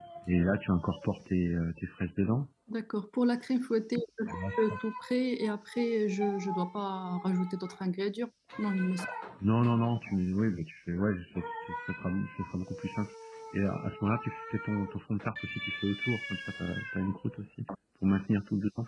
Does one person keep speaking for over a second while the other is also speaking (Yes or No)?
No